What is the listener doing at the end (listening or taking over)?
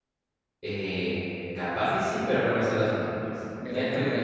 taking over